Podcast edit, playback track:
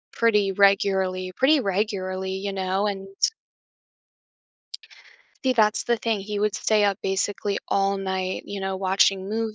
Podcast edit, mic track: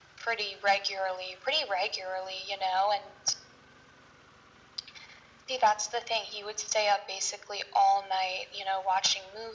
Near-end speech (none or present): none